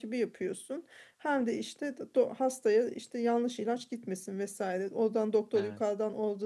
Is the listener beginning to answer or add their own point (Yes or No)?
No